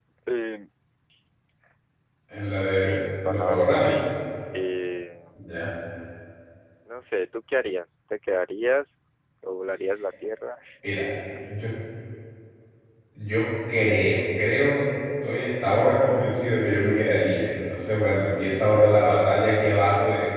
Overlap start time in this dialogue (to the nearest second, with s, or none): 3 s